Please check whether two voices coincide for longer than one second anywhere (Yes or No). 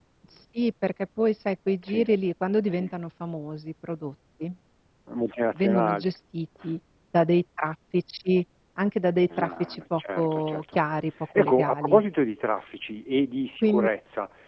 Yes